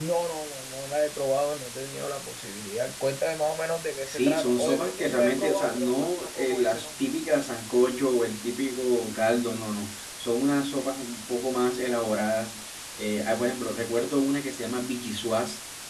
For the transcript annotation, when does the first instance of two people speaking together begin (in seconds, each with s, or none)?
4.1 s